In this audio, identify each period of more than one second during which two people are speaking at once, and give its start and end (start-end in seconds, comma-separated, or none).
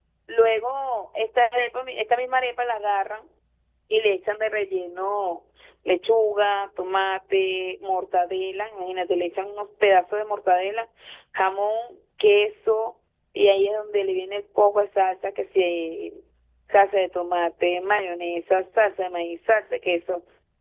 none